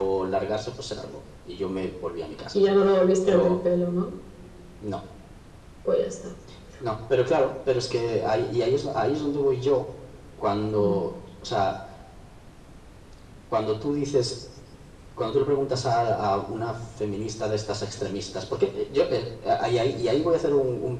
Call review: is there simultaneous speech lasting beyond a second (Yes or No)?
No